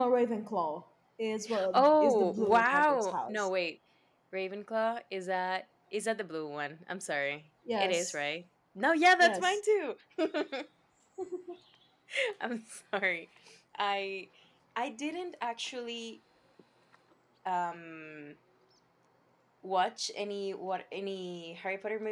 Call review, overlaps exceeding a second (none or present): present